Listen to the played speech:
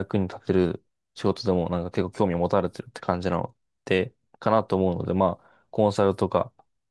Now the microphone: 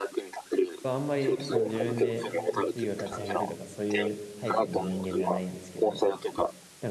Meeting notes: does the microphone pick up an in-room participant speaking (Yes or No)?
Yes